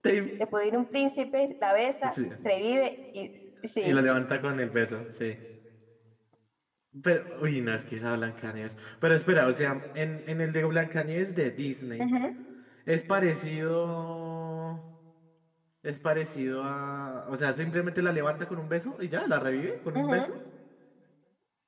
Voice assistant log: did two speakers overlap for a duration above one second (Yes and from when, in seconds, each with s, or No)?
No